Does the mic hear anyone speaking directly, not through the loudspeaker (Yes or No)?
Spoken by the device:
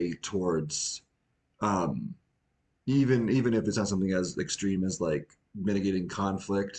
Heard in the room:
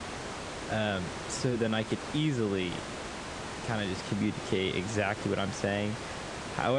Yes